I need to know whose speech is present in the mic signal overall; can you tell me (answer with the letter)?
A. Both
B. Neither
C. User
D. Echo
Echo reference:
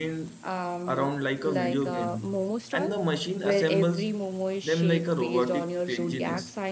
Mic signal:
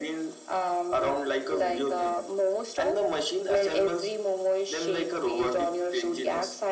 D